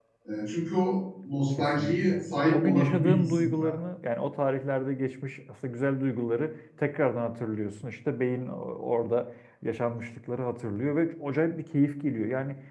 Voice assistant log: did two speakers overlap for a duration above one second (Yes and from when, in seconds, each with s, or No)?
Yes, from 1.6 s